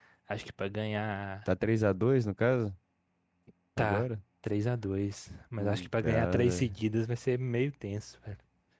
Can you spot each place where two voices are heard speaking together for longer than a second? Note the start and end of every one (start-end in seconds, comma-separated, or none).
5.6-6.8